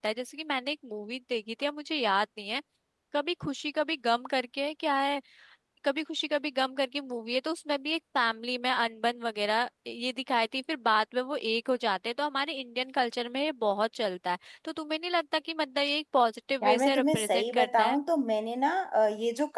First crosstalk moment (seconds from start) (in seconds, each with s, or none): 16.6 s